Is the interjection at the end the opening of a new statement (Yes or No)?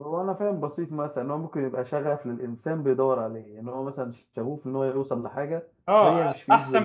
Yes